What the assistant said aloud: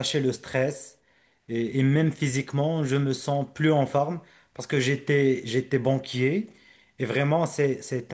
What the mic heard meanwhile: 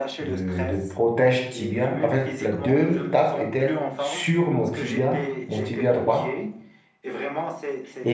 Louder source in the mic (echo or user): user